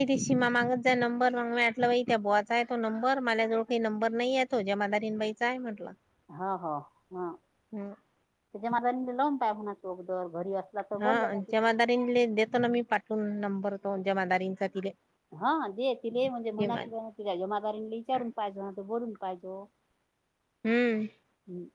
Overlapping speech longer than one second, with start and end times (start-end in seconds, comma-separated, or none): none